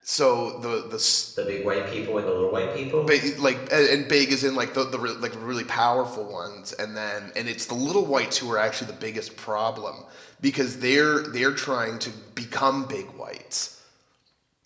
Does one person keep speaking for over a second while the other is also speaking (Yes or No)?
No